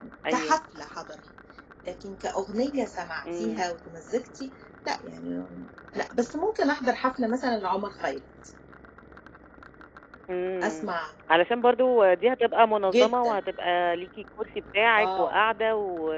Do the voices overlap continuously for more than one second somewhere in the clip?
No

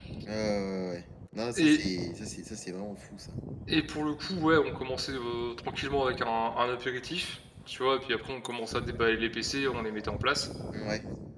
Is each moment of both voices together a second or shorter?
Yes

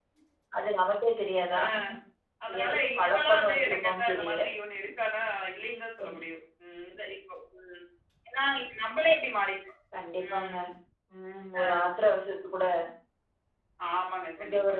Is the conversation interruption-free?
No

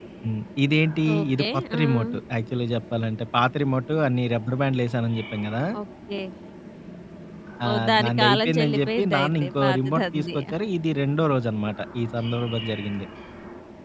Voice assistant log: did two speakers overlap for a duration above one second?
Yes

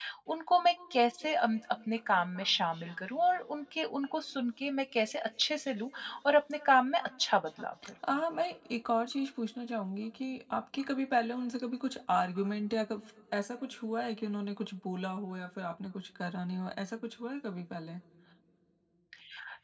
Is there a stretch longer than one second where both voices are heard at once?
No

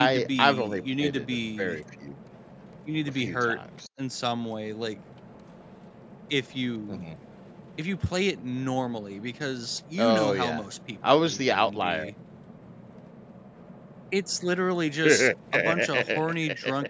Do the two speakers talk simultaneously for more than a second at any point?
Yes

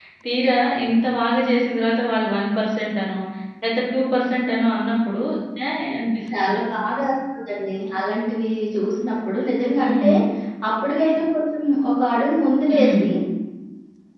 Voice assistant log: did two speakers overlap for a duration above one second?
No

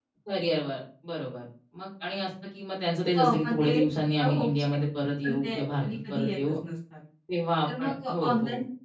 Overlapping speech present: Yes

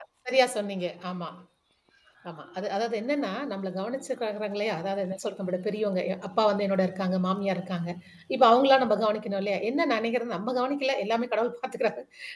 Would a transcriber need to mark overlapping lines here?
No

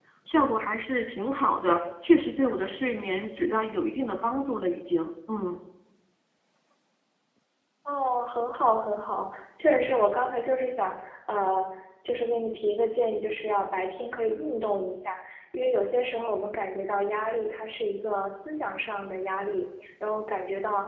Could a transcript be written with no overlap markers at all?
Yes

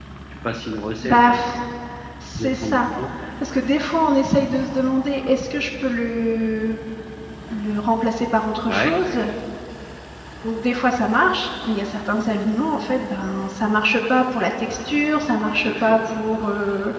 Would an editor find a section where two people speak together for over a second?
No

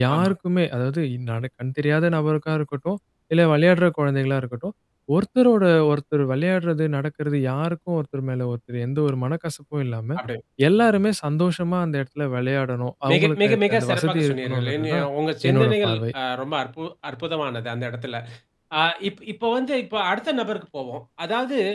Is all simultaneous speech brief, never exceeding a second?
No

